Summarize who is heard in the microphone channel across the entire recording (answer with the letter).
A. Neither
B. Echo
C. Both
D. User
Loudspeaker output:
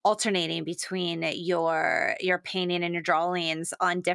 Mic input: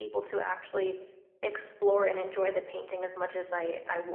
D